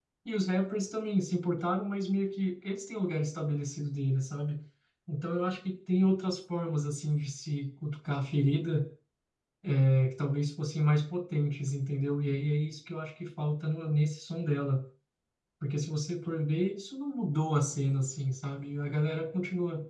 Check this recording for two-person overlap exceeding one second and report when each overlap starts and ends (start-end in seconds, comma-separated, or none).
none